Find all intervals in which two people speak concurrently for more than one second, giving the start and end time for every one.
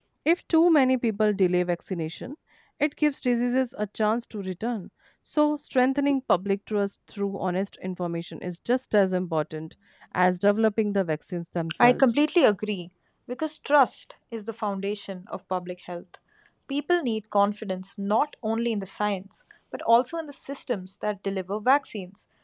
none

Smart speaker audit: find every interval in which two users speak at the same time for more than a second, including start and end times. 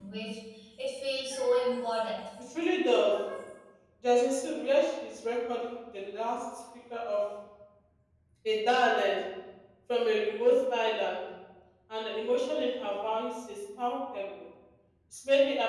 none

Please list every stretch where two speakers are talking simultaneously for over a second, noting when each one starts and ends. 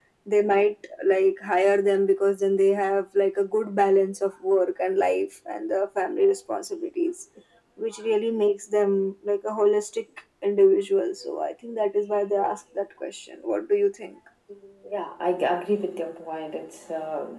none

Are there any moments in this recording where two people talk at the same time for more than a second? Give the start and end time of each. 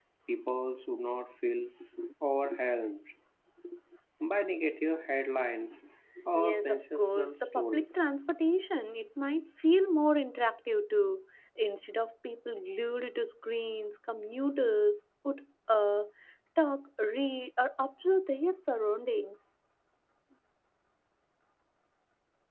6.3-8.0

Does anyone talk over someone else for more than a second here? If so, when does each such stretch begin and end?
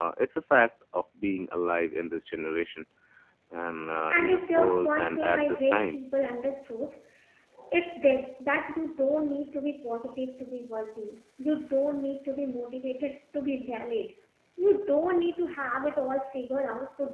4.1-6.0

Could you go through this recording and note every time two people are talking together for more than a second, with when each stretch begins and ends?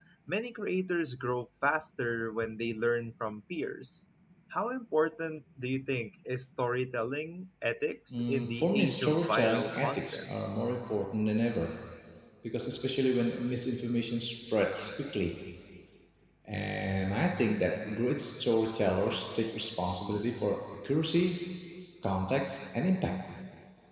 8.1-10.3

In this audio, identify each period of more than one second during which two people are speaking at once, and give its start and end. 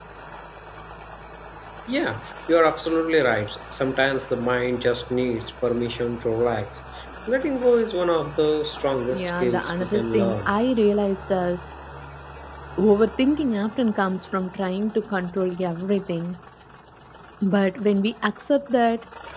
9.1-10.6

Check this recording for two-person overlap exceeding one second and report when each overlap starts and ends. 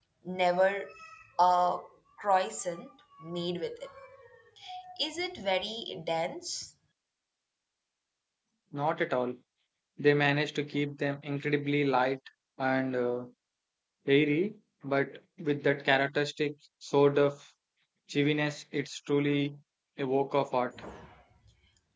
none

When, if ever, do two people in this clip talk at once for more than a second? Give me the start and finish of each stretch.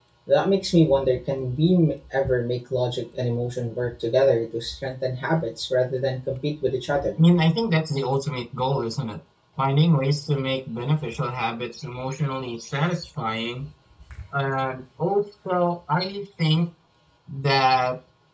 none

